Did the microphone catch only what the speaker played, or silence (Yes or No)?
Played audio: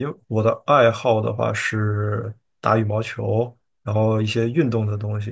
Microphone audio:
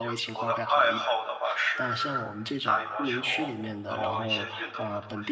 No